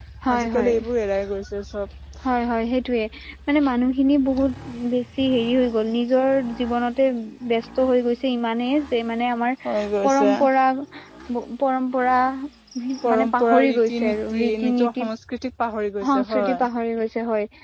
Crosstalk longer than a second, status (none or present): present